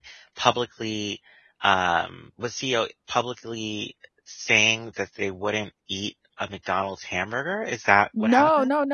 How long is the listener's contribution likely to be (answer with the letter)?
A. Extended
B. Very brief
A